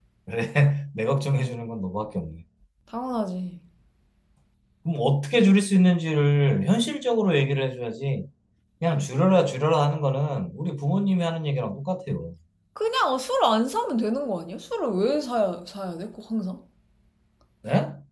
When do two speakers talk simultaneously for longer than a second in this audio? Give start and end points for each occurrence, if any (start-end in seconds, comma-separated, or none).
none